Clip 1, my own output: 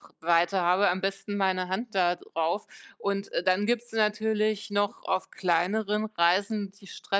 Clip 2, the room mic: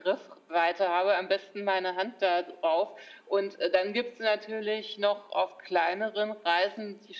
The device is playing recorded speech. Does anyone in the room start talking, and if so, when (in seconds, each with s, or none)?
none